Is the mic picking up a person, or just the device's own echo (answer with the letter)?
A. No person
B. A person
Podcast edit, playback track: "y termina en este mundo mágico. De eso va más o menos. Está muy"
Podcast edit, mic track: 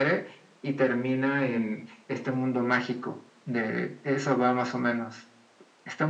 A